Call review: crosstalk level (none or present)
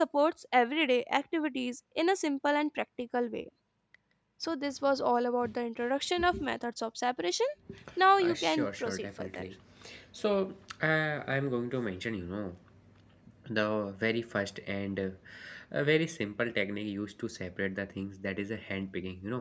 present